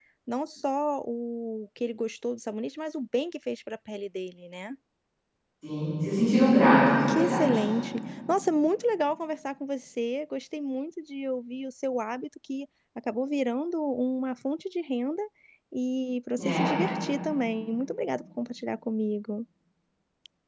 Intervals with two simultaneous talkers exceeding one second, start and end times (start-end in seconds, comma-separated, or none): none